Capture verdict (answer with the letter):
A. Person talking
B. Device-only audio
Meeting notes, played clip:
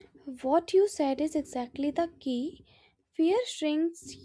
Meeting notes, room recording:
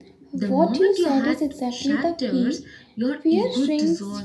A